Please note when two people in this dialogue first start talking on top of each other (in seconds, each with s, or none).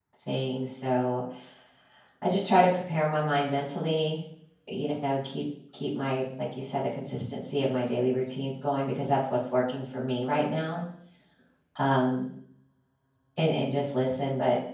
none